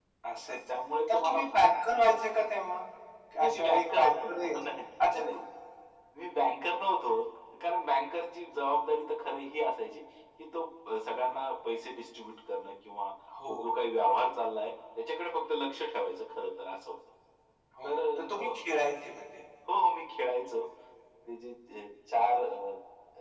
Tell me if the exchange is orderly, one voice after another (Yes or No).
No